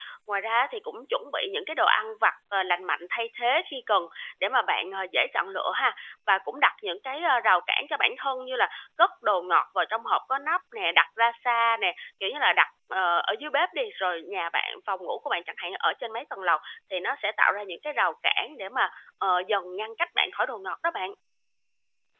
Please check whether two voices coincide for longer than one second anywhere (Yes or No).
No